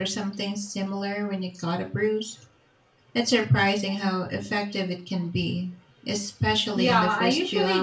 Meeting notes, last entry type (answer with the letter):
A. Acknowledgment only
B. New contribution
B